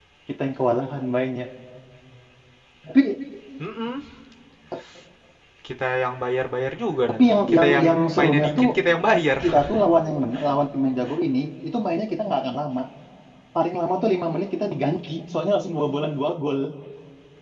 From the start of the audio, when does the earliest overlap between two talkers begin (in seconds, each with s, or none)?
7.1 s